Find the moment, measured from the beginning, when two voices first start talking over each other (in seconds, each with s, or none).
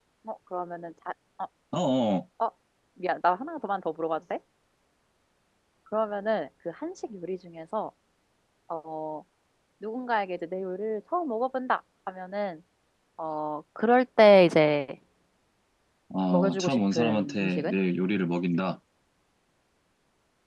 16.3 s